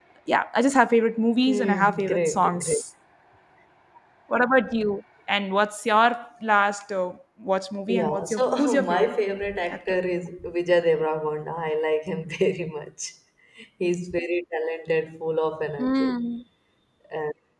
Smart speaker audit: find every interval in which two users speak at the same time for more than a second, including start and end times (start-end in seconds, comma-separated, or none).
1.5-2.8, 7.9-9.1